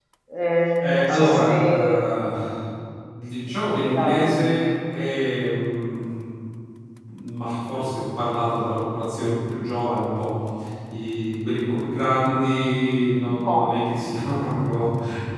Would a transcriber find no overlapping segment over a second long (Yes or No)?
No